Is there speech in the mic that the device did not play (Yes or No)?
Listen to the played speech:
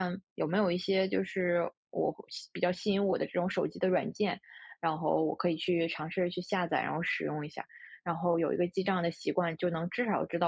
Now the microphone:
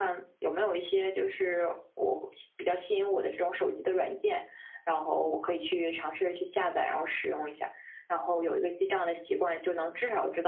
No